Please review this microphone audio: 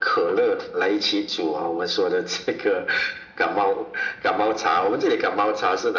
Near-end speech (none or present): none